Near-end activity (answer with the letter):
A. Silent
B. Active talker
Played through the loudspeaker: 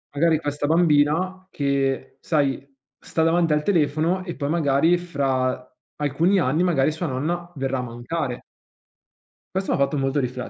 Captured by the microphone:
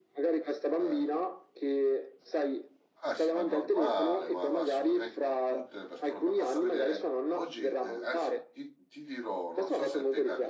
B